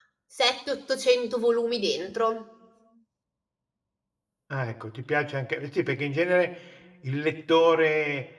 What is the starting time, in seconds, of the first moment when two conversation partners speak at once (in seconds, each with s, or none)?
none